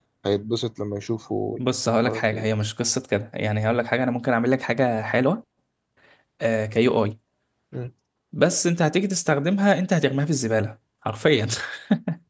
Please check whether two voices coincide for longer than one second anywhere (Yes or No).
No